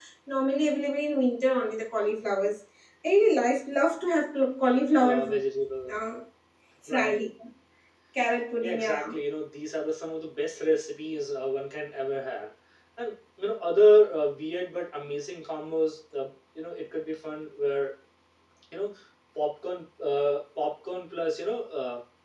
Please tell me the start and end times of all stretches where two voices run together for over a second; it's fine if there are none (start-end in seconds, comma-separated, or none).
none